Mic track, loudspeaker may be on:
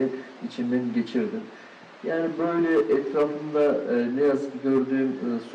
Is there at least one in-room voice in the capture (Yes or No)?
No